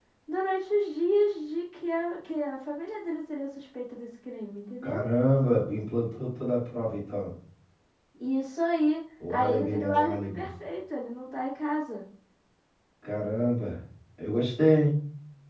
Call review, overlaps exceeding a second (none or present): present